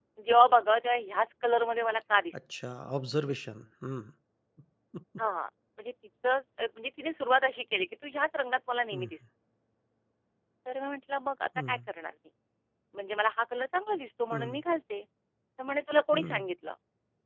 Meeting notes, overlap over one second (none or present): none